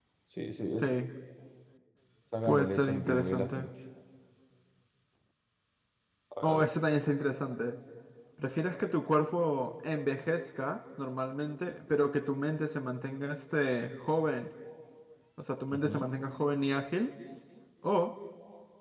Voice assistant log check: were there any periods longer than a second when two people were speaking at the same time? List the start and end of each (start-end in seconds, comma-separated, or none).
2.4-3.7